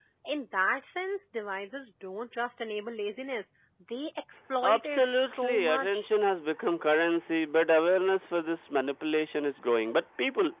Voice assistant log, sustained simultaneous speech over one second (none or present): present